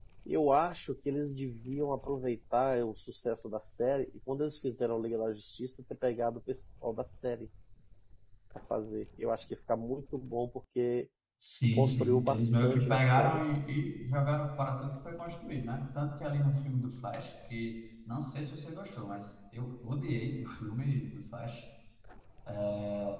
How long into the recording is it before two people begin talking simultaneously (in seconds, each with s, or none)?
11.7 s